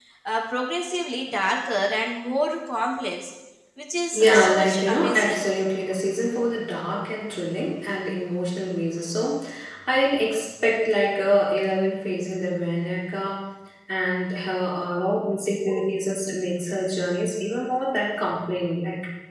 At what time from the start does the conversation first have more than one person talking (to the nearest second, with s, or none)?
4 s